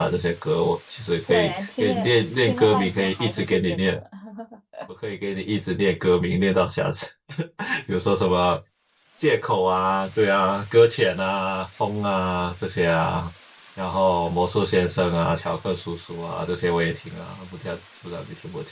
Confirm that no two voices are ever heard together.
No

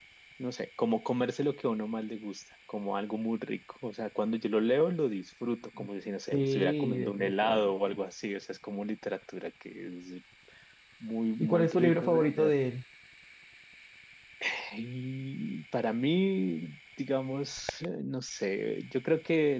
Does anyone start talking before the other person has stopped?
Yes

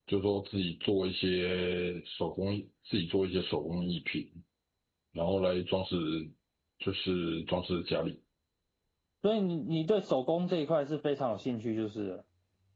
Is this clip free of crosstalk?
Yes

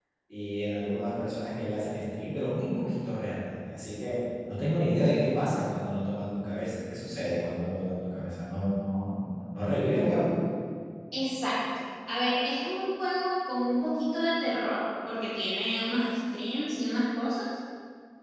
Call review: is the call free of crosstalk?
Yes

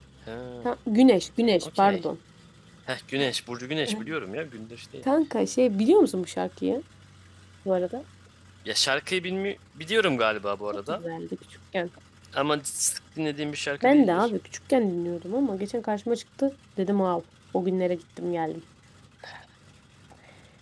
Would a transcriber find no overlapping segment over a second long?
Yes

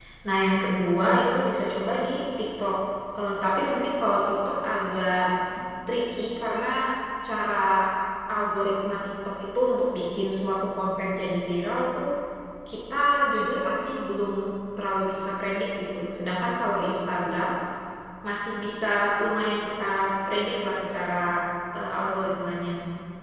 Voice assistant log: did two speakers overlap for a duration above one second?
No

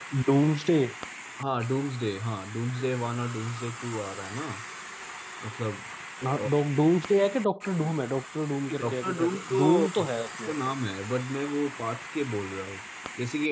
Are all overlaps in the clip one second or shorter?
No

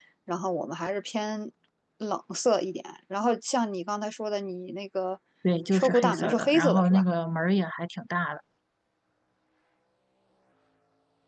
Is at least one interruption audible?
Yes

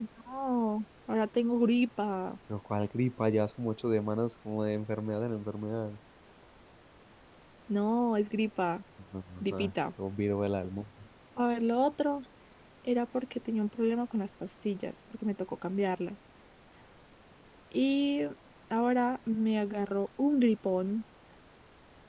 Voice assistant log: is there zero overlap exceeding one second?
Yes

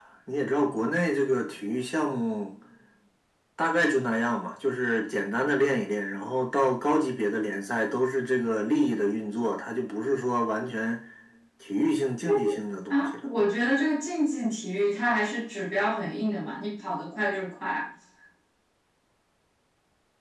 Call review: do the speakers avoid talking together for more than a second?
Yes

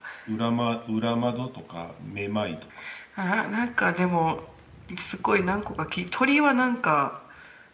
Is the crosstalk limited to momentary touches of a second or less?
Yes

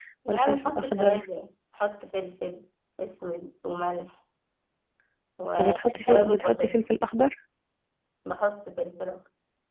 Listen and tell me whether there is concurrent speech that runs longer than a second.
Yes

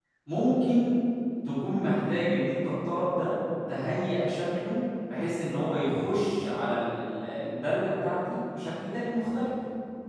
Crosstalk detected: No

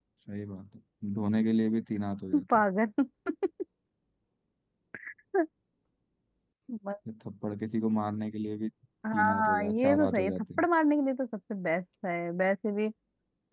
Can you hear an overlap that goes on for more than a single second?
Yes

